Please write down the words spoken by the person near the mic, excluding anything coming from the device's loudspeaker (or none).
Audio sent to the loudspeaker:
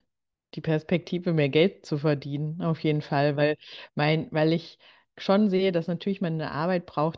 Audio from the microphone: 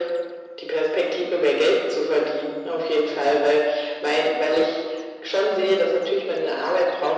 none